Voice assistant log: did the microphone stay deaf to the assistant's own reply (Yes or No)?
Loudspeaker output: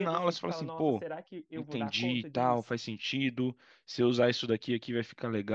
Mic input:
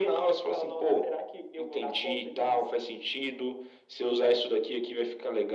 No